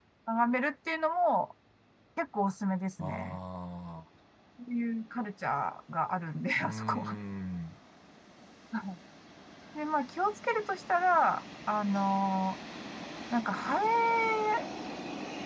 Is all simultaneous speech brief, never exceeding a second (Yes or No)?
Yes